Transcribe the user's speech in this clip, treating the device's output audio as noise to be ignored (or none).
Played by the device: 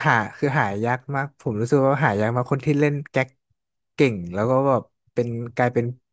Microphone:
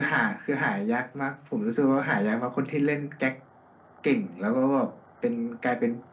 none